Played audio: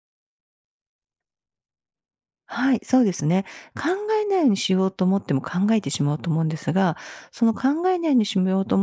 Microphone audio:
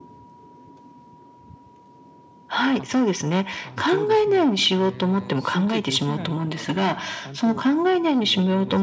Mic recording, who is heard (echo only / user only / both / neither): both